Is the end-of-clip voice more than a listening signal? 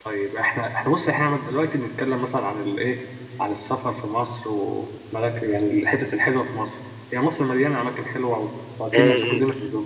Yes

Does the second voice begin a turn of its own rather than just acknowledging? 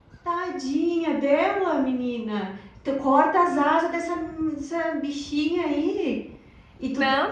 Yes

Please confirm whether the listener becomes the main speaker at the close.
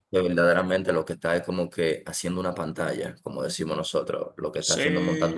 Yes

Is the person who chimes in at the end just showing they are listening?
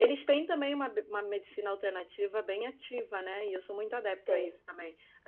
Yes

